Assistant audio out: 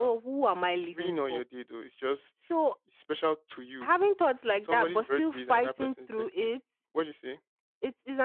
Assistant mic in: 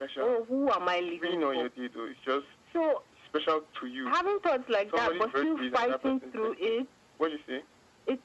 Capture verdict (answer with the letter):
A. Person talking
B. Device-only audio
B